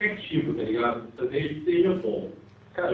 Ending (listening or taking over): taking over